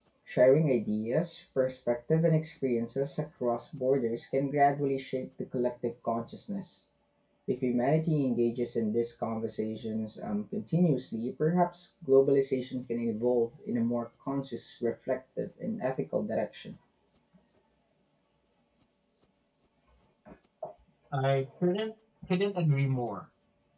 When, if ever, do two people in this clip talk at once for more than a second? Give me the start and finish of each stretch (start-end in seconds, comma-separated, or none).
none